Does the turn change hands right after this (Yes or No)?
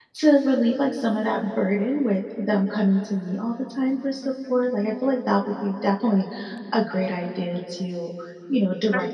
No